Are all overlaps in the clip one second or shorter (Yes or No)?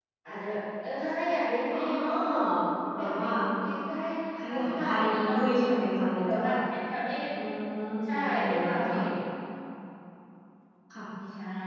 No